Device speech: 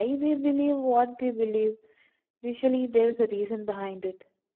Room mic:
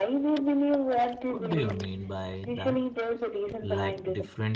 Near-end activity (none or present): present